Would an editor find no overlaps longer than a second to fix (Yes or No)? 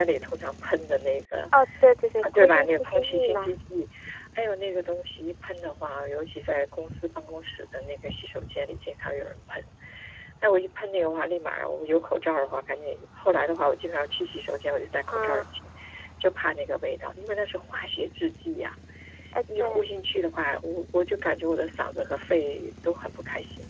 No